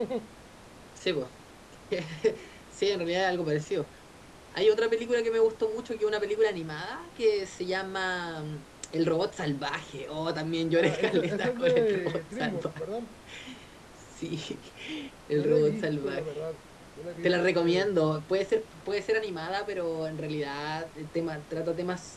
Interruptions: present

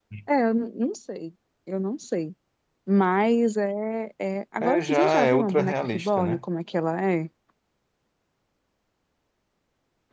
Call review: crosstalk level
present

